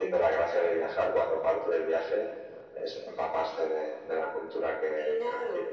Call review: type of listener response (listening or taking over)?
taking over